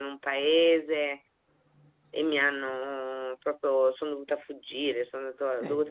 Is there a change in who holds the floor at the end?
No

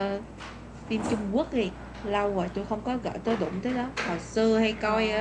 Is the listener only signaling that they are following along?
Yes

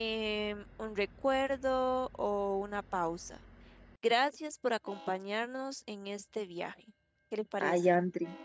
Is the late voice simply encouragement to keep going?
No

